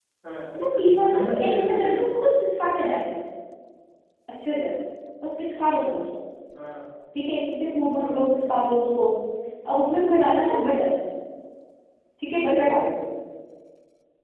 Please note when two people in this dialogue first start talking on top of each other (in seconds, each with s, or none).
0.8 s